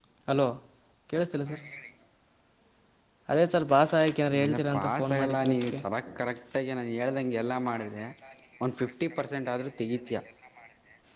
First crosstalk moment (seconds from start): 4.3 s

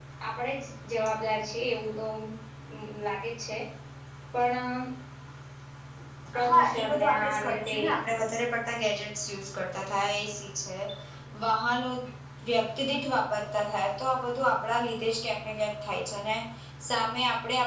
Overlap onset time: 6.5 s

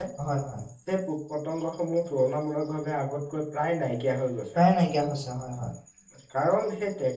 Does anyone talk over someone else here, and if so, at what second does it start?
none

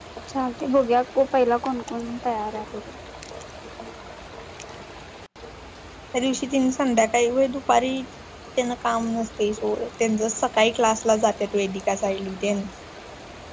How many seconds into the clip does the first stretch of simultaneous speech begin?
none

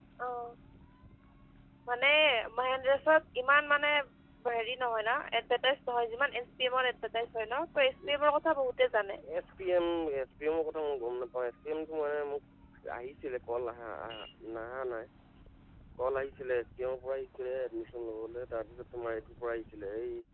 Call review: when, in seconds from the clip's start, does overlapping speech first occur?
none

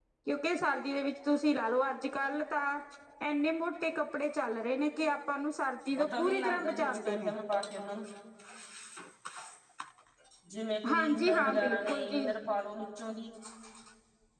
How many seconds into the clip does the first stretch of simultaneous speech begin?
6.1 s

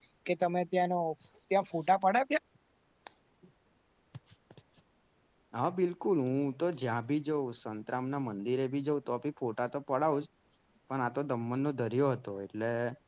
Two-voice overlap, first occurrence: none

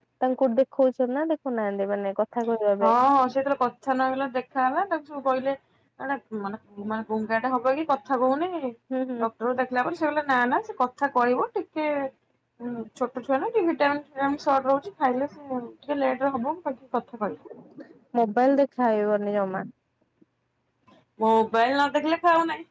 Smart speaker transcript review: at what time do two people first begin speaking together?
none

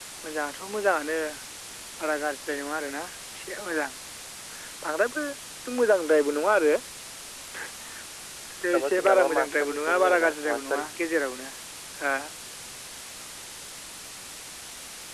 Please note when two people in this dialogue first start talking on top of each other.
8.7 s

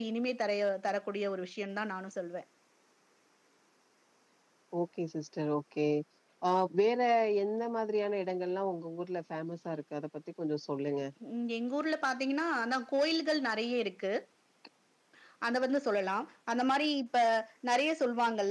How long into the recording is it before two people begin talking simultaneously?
none

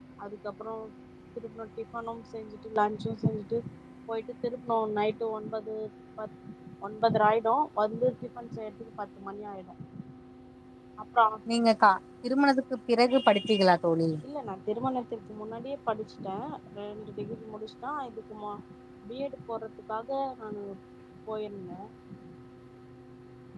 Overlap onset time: none

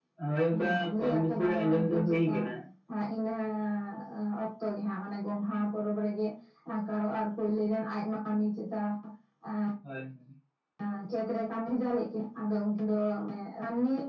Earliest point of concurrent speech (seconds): 0.6 s

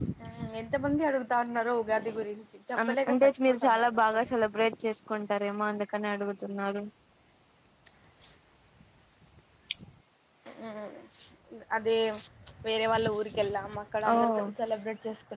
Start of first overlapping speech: 2.9 s

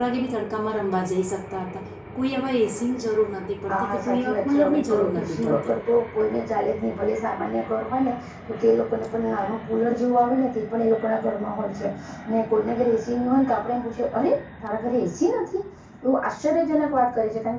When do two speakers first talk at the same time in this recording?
3.7 s

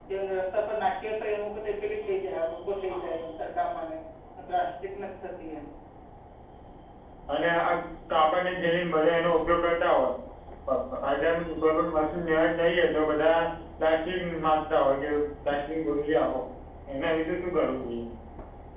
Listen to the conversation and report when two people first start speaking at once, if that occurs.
none

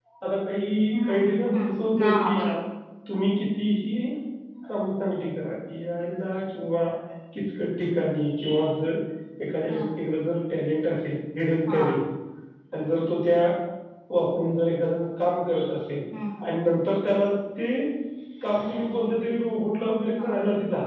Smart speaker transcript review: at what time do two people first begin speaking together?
0.9 s

